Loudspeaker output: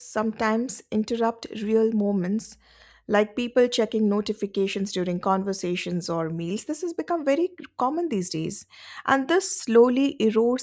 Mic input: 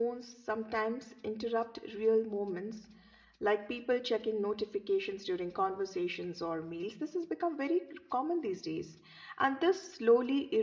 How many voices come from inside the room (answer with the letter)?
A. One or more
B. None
B